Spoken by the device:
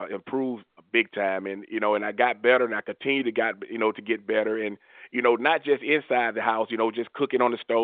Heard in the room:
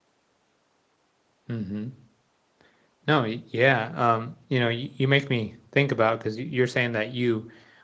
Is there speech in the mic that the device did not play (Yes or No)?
Yes